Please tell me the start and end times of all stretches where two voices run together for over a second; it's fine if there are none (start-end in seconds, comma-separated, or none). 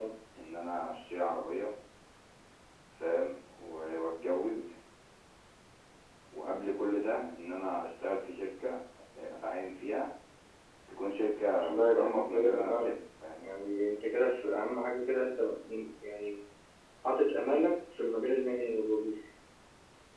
11.6-12.9